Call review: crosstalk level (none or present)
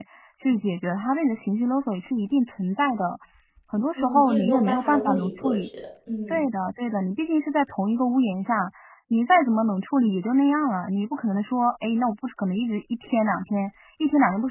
present